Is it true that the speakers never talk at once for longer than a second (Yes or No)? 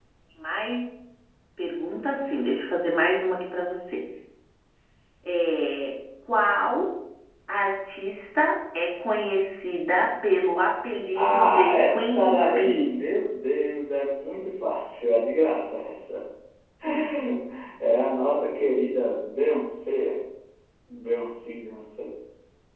No